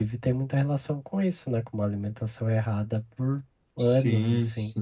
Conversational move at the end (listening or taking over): taking over